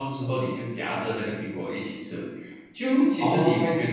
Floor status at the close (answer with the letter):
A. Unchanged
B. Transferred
A